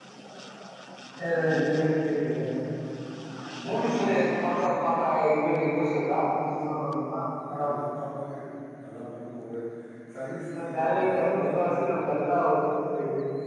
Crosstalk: present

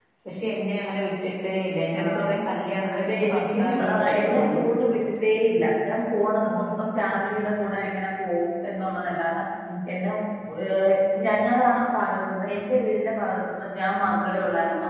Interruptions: present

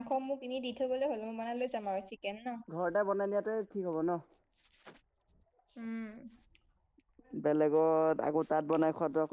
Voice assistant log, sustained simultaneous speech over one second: none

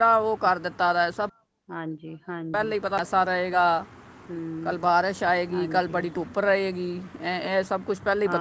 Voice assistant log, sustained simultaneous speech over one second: none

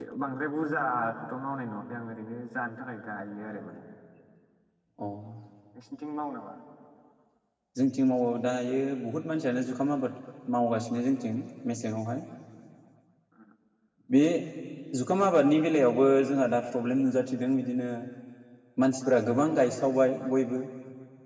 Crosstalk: none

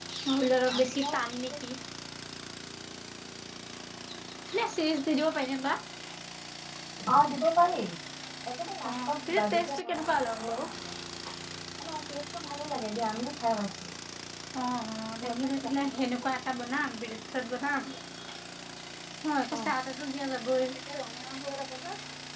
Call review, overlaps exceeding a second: present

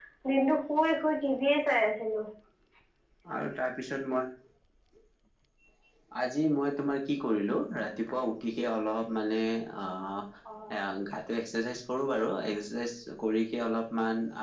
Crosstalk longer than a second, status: none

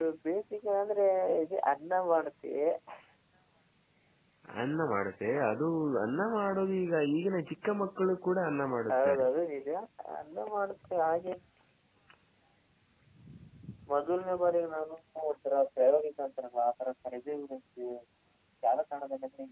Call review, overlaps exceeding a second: none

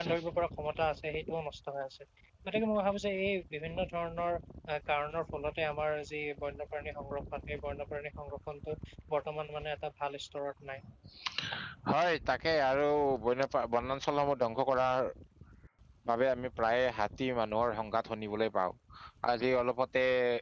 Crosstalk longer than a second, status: none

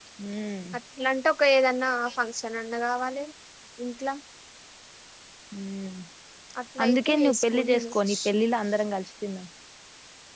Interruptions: present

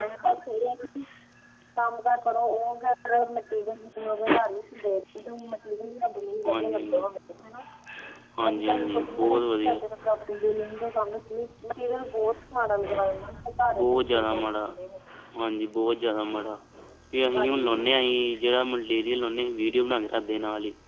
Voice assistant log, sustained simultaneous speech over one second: present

